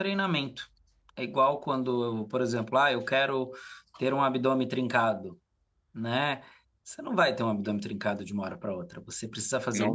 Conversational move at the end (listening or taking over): listening